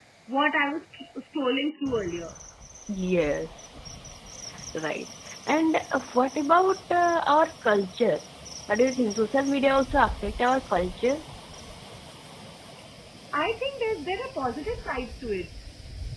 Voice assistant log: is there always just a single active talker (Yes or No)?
Yes